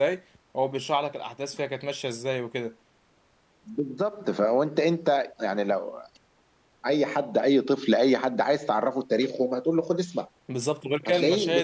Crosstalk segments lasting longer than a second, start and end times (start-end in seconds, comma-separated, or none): none